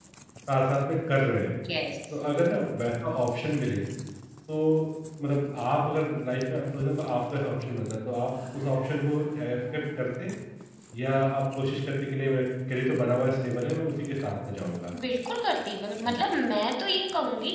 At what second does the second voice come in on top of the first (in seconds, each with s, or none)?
none